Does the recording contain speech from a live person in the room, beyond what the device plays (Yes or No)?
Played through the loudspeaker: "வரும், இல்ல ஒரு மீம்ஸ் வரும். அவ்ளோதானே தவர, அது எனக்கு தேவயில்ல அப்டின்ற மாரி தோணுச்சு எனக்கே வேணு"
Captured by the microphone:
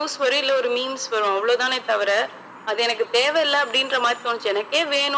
No